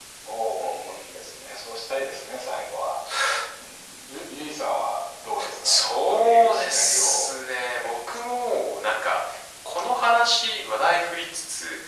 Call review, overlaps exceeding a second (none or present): present